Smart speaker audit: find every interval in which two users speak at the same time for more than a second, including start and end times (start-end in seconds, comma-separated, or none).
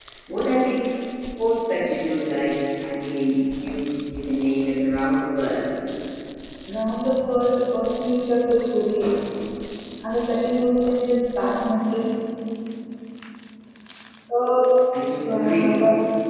none